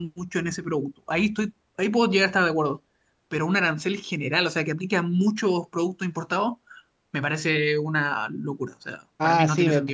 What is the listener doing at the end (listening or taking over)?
taking over